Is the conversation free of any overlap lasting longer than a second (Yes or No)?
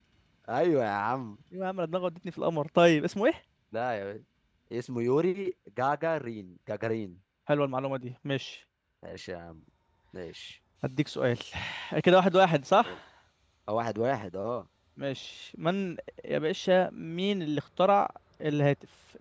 Yes